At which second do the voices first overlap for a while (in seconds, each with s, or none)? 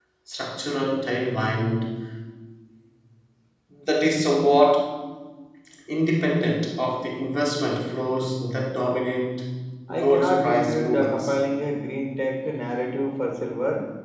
9.9 s